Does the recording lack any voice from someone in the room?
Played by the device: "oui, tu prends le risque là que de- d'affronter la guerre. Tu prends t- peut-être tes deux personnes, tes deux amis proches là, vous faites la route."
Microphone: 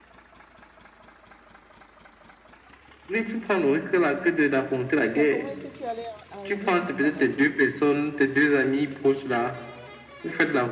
No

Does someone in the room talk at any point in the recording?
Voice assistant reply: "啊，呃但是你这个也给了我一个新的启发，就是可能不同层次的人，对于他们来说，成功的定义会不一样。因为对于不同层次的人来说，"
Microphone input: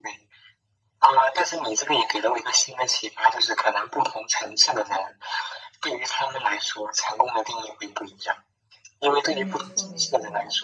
Yes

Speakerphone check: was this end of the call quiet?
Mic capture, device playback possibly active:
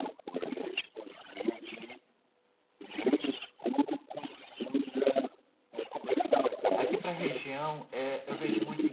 No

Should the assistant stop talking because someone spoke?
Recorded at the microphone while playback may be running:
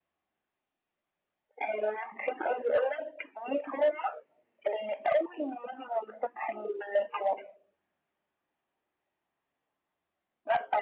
No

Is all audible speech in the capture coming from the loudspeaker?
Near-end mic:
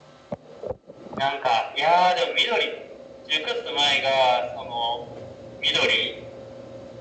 Yes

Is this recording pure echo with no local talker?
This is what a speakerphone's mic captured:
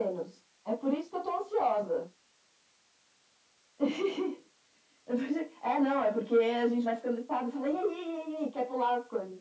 Yes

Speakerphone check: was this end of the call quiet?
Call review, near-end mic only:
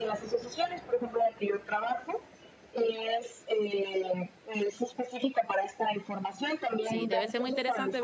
No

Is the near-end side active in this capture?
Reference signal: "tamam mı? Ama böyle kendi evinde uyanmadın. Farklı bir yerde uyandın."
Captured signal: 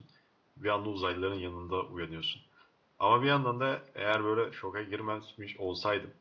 Yes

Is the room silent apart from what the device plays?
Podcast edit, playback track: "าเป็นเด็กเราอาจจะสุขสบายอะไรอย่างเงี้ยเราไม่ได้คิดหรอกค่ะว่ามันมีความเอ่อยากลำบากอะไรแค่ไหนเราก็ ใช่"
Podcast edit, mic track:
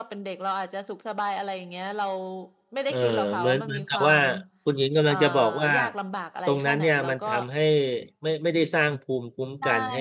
No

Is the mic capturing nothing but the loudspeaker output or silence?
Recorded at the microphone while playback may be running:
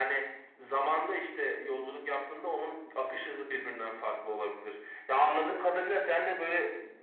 Yes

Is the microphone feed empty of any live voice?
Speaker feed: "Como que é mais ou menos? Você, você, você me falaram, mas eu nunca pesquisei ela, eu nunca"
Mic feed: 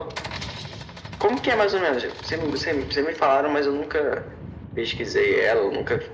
Yes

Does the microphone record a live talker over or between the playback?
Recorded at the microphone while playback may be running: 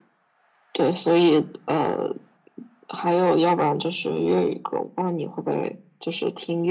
No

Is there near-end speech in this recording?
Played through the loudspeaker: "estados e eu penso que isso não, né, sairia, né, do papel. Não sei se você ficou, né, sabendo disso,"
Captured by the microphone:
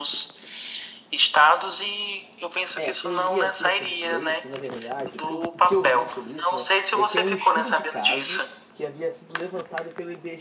Yes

